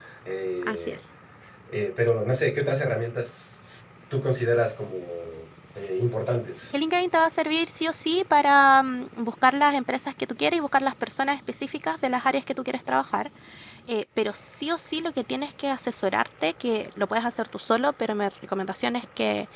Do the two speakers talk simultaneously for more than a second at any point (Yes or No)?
No